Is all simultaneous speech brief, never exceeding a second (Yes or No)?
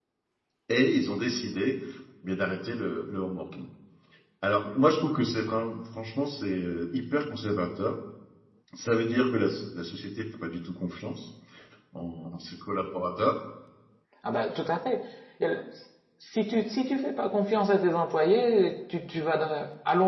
Yes